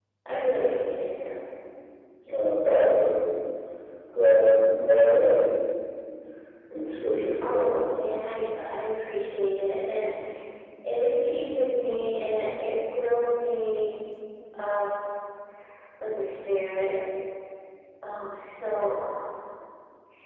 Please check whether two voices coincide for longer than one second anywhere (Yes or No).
No